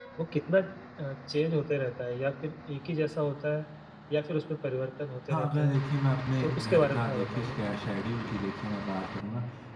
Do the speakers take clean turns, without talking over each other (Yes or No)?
No